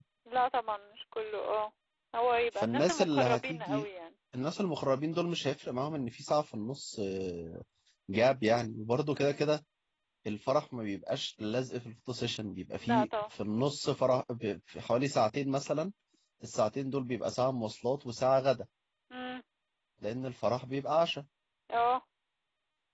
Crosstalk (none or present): present